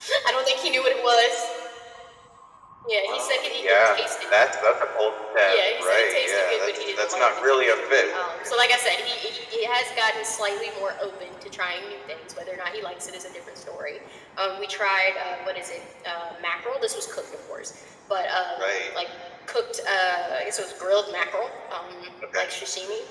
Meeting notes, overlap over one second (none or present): present